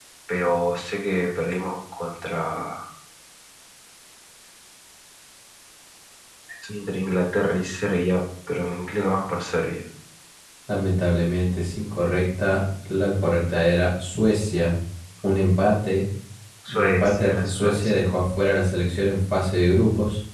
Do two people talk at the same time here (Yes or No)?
Yes